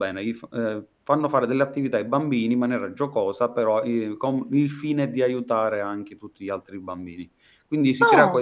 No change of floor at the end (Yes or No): Yes